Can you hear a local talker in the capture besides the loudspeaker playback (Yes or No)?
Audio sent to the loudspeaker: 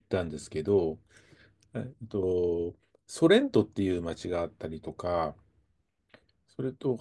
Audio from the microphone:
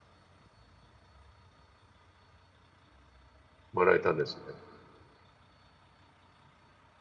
Yes